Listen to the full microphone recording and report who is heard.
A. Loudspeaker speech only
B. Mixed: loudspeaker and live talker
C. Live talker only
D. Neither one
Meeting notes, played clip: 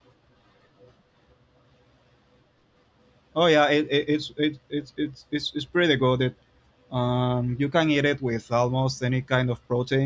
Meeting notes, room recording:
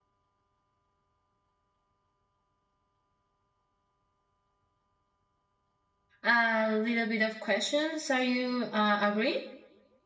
C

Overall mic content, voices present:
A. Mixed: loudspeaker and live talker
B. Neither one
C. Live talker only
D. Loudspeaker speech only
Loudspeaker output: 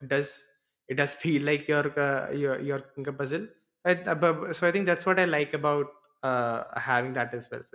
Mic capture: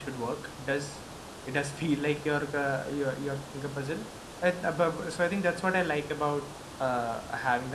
D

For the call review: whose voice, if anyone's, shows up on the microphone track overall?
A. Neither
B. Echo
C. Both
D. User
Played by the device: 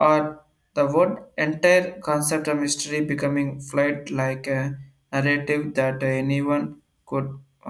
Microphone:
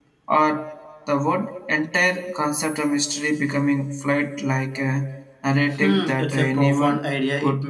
C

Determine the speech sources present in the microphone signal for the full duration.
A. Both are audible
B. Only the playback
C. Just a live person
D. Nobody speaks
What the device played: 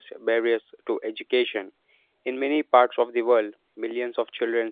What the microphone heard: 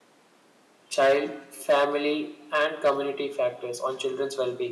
C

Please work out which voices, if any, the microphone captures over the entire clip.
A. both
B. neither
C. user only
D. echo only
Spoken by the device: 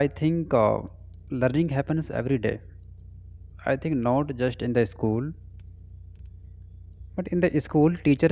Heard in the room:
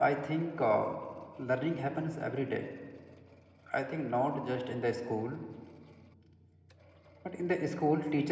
D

